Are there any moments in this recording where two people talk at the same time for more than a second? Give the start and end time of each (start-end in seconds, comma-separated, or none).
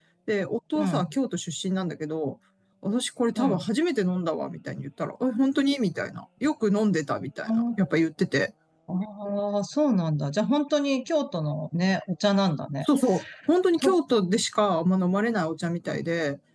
none